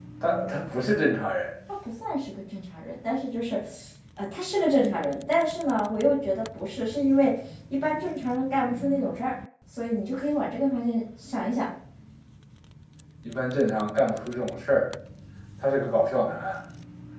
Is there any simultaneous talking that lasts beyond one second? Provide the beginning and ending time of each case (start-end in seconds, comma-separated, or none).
none